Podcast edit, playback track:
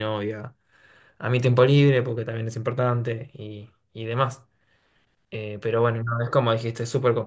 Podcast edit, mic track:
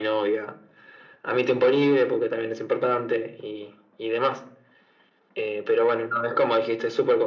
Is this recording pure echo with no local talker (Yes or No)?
Yes